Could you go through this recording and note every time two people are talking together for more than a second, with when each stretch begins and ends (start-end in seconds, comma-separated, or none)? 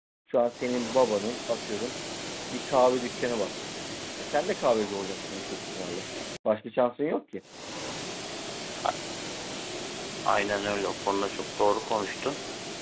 none